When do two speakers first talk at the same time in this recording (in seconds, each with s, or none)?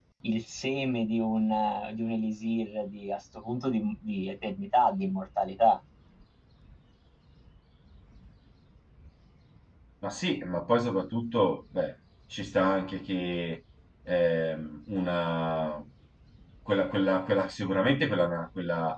none